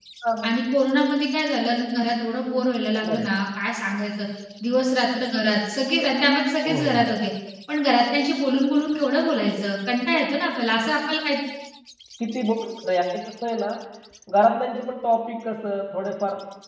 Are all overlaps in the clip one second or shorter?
Yes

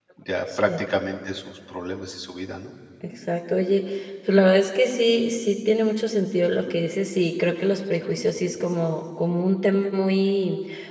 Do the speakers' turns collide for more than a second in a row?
No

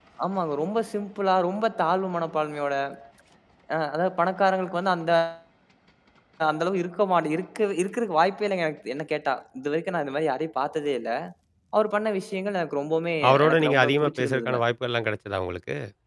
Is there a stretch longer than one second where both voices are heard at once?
Yes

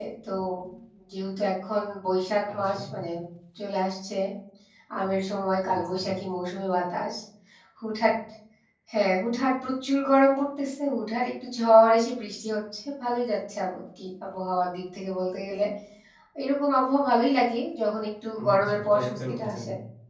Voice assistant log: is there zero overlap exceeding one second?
No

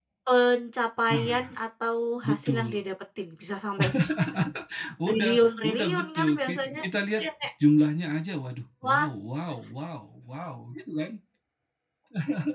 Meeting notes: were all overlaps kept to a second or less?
No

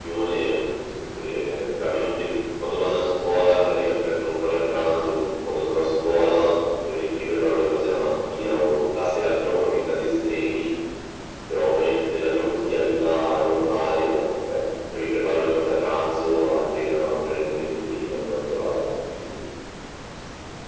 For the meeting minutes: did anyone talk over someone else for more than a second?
No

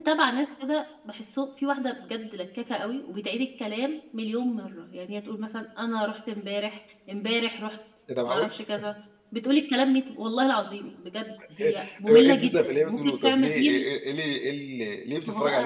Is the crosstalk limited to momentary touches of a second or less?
No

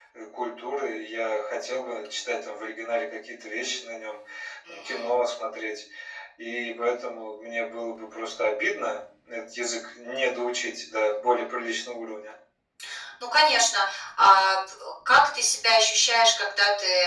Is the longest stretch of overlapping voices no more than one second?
Yes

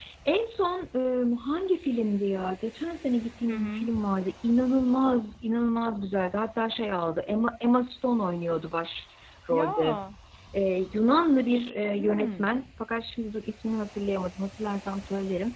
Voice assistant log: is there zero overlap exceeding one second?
Yes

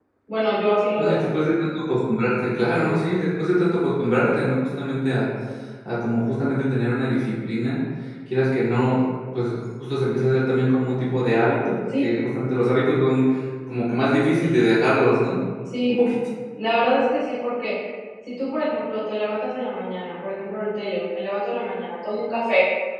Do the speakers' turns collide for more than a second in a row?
No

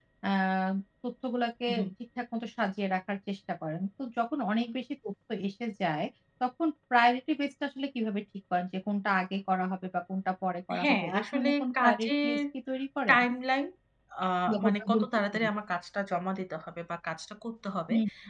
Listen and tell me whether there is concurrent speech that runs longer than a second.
Yes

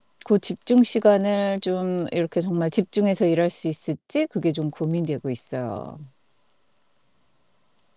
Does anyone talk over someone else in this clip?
No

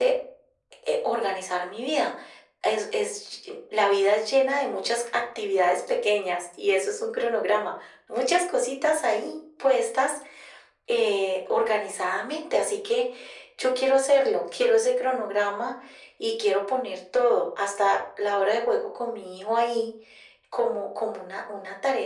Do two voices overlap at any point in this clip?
No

